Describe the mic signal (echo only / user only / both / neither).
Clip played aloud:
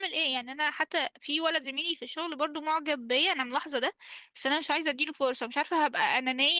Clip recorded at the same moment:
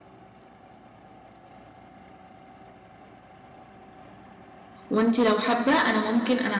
user only